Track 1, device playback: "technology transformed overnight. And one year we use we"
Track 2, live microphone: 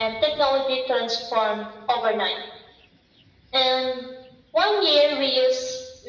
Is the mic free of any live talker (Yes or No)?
Yes